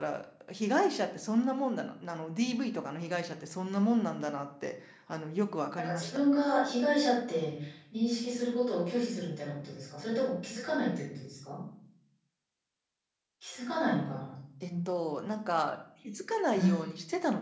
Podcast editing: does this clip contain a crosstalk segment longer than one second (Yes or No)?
No